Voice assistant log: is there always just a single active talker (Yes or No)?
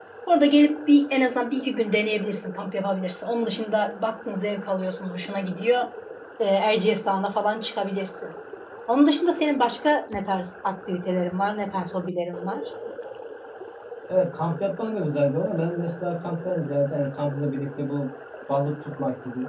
Yes